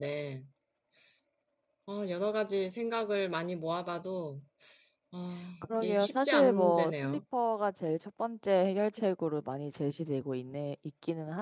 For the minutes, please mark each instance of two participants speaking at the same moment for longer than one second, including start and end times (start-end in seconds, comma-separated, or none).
5.7-7.2